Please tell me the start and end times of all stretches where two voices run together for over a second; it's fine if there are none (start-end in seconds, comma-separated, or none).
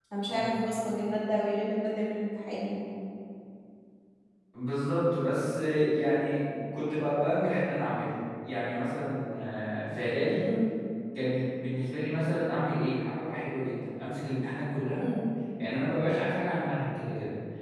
none